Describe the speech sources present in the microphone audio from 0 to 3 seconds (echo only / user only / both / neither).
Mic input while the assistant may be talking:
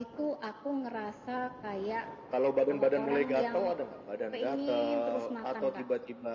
echo only